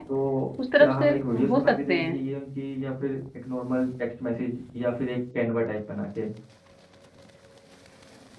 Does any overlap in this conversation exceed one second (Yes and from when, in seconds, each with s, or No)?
Yes, from 0.8 s